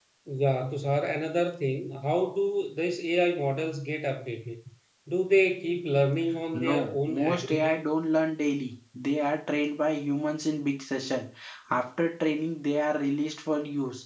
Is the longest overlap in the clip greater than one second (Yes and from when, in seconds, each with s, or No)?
Yes, from 6.5 s